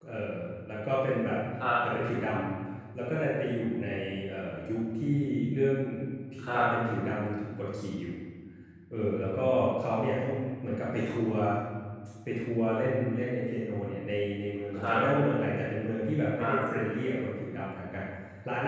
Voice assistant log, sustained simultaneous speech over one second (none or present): none